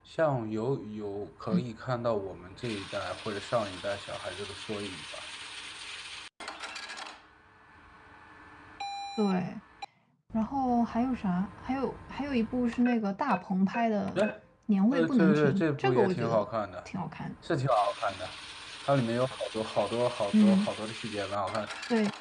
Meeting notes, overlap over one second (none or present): present